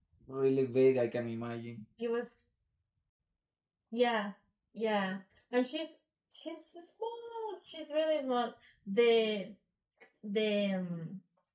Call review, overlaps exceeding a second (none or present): none